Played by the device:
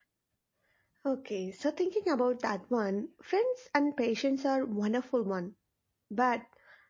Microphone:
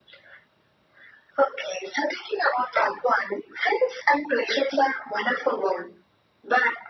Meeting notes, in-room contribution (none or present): none